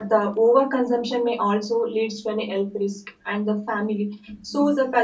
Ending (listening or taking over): listening